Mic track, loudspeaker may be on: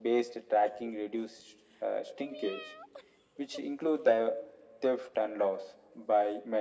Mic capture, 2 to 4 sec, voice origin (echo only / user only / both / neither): echo only